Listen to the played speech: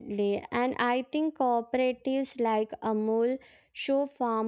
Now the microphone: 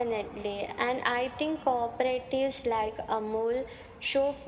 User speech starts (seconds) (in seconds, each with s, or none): none